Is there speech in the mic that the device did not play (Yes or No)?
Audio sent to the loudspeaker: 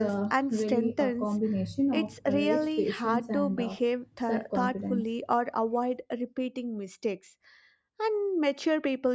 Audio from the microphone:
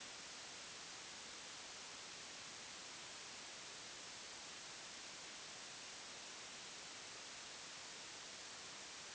No